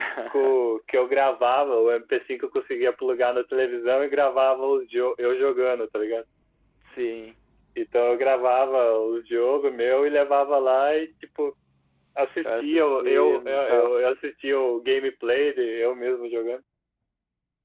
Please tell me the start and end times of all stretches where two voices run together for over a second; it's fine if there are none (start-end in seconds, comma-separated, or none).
12.4-13.9